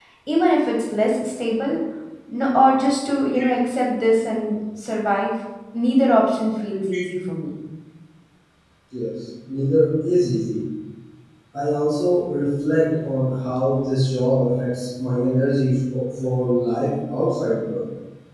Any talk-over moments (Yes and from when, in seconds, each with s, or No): No